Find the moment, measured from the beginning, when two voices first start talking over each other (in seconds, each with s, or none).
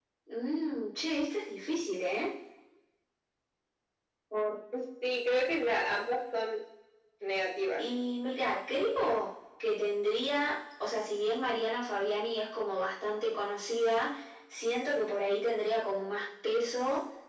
none